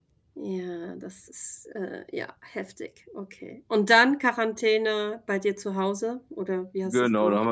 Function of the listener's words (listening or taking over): taking over